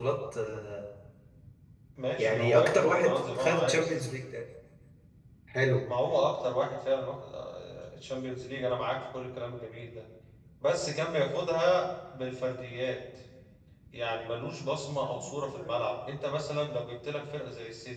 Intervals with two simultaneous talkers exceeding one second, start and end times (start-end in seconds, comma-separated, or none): 2.2-4.0